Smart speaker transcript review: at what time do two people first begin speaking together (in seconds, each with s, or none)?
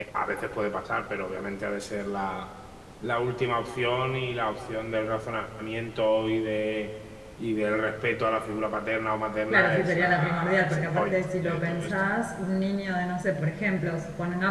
9.5 s